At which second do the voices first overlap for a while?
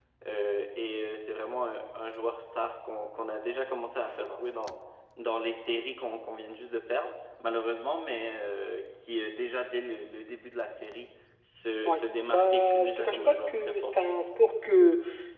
11.8 s

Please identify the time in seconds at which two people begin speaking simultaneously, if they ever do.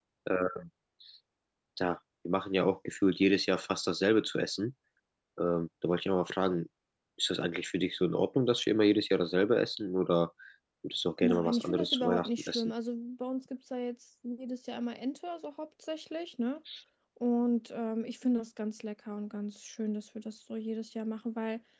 11.2 s

